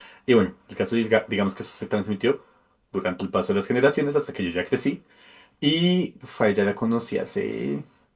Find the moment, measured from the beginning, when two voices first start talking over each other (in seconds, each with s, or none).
none